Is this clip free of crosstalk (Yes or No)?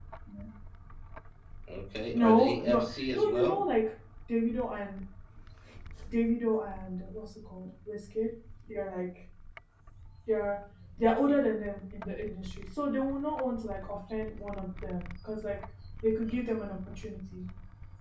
No